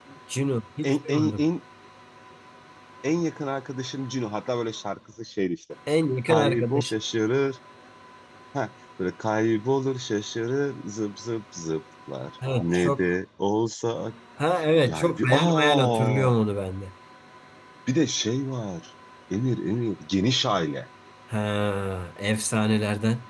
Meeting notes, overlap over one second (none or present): present